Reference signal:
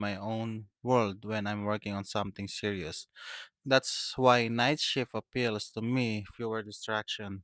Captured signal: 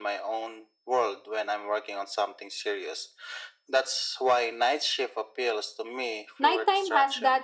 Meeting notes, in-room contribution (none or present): present